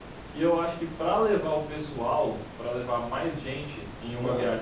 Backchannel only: Yes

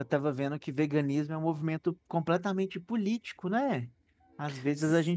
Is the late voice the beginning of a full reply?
No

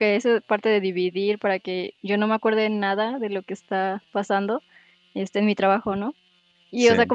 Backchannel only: Yes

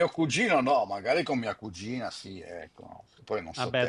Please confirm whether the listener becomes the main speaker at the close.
Yes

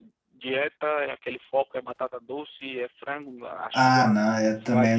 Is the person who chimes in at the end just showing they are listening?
No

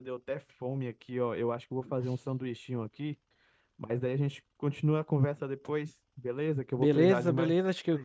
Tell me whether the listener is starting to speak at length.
Yes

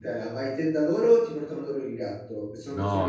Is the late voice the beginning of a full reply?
Yes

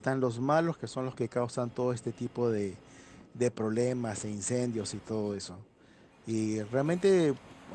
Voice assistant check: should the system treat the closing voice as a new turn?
No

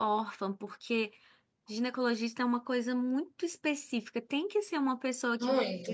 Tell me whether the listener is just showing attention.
Yes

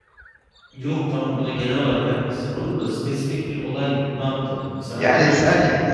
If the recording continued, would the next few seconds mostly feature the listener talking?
Yes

